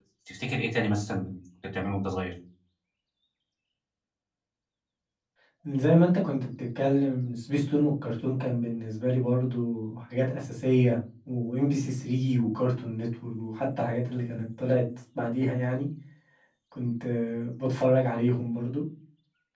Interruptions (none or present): none